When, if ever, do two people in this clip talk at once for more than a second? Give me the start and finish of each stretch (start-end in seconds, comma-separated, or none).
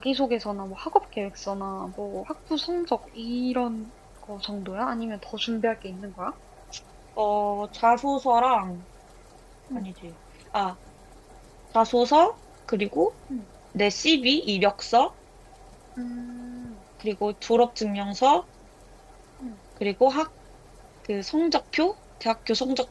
none